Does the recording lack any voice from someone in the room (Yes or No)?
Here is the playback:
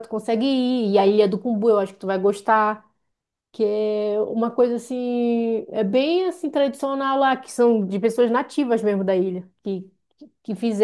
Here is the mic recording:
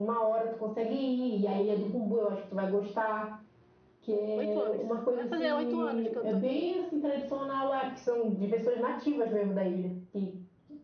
No